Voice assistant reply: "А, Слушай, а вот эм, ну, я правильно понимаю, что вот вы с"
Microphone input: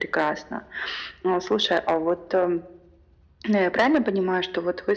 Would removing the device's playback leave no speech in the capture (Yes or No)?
Yes